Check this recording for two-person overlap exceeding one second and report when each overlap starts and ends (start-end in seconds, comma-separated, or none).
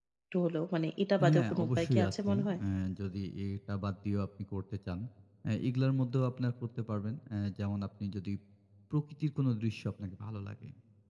1.3-2.6